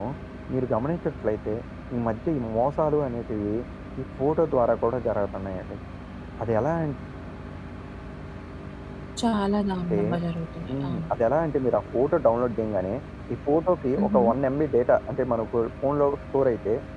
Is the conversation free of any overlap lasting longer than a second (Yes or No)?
Yes